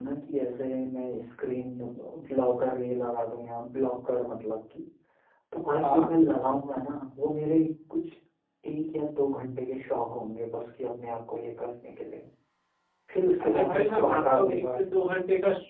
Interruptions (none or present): present